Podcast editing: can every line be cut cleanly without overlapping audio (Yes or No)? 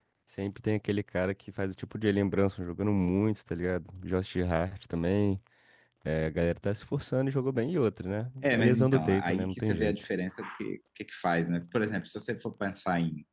No